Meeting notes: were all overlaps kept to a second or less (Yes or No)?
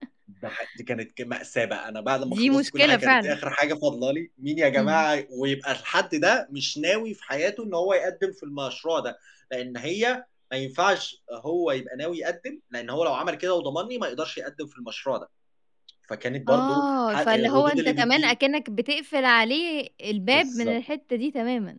No